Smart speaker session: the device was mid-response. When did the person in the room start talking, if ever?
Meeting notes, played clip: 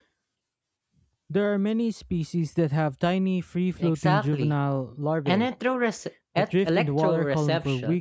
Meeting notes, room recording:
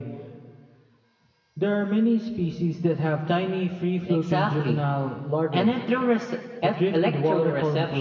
none

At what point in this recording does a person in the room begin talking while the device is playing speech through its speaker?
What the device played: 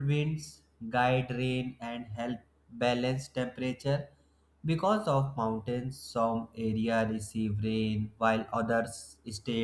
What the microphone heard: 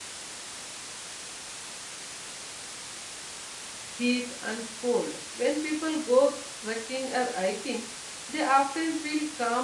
4 s

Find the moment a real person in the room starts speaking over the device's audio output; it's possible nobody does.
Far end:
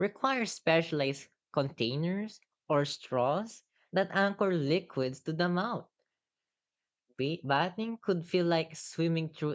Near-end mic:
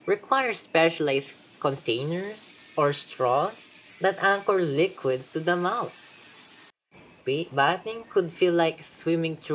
none

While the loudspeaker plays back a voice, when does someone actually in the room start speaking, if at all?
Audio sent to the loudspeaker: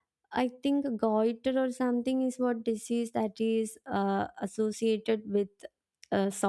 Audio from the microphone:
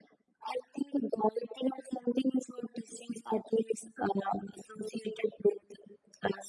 none

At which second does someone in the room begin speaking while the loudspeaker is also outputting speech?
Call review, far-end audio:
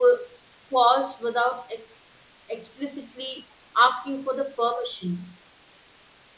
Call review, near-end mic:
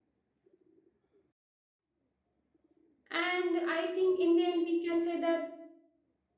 3 s

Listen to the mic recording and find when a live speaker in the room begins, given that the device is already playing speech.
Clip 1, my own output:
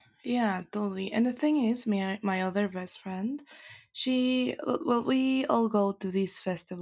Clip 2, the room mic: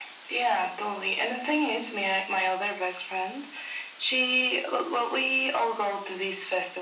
none

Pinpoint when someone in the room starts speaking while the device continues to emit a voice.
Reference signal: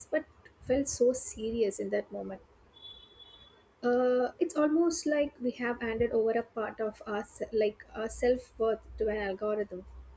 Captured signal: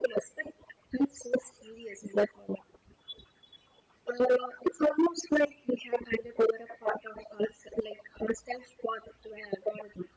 none

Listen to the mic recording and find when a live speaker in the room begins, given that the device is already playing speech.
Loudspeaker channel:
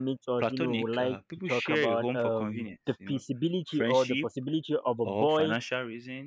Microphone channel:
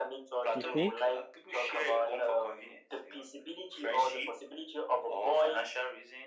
1 s

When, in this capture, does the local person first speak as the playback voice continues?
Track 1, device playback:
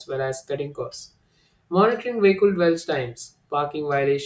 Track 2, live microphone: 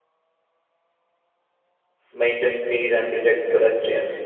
2 s

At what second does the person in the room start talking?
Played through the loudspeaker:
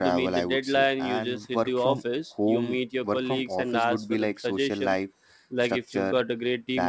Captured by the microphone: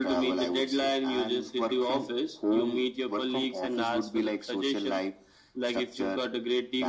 none

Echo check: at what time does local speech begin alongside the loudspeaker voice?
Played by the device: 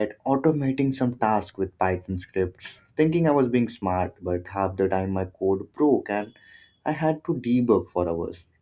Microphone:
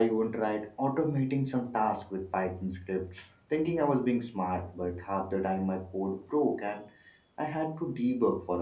none

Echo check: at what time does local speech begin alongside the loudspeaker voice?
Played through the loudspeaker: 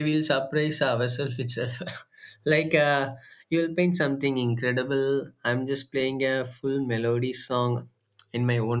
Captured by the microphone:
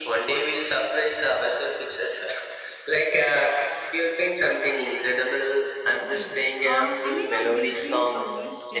6 s

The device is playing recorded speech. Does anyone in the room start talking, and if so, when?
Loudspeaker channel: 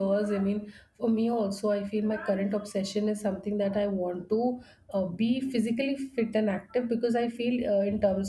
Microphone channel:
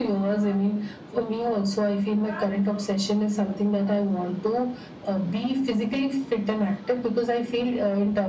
none

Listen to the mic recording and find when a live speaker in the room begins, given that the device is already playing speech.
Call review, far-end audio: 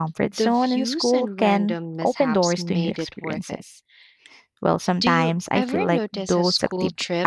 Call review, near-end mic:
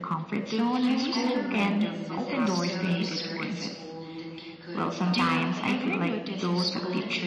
1 s

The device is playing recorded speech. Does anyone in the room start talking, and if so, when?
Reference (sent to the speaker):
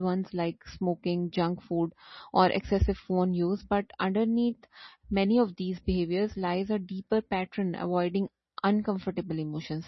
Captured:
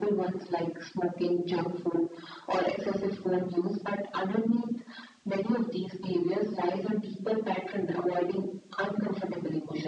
none

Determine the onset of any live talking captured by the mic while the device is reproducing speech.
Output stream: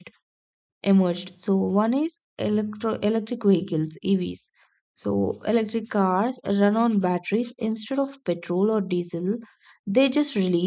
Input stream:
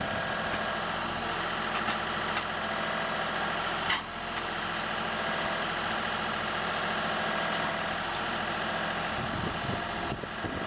none

